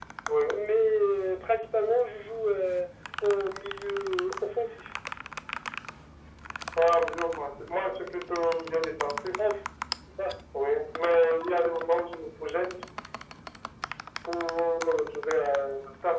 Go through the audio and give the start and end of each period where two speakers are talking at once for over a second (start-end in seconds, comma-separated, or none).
none